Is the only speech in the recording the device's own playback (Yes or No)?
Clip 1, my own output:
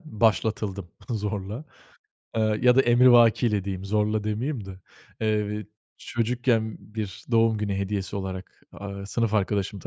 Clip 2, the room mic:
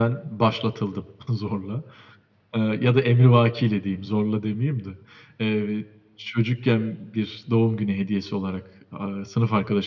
Yes